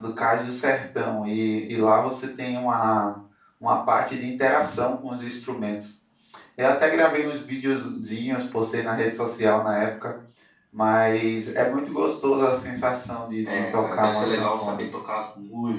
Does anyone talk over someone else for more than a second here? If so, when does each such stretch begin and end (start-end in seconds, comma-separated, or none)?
13.5-14.8